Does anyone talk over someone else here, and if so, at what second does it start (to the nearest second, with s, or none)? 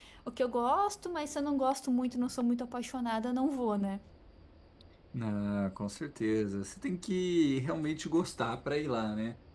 none